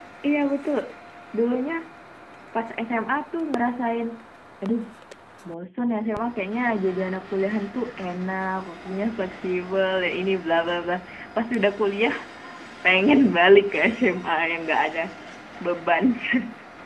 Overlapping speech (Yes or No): No